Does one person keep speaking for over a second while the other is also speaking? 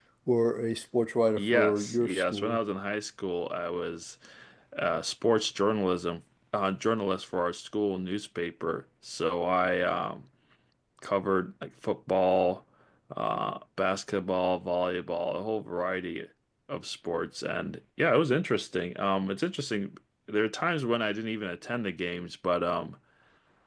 Yes, from 1.4 s

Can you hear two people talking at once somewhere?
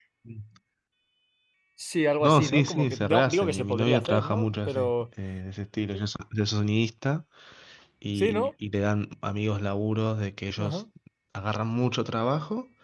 Yes, from 2.2 s

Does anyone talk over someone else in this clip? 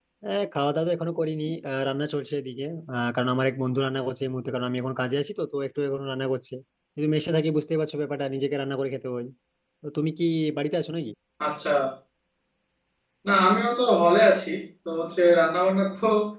No

